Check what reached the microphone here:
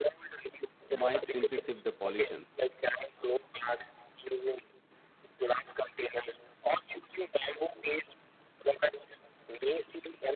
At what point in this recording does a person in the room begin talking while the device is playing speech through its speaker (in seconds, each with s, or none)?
0.9 s